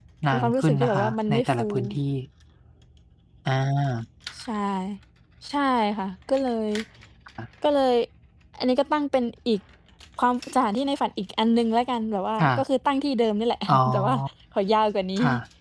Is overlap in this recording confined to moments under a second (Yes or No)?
No